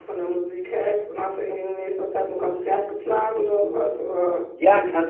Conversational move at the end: taking over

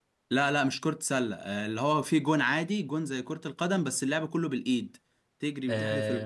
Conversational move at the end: listening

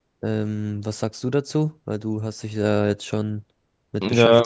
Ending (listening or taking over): taking over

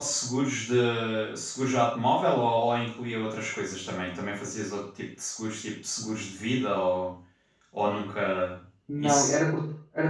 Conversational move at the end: taking over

